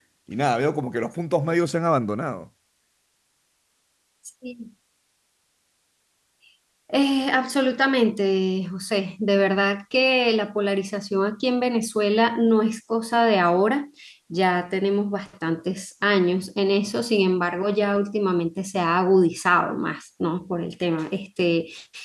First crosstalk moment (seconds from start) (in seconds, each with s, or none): none